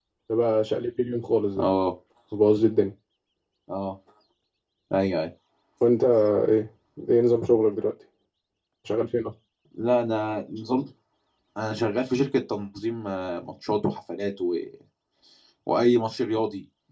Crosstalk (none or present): none